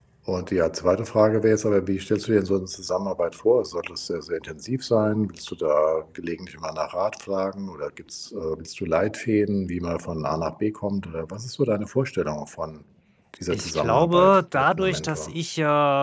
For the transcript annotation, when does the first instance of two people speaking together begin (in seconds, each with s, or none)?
13.5 s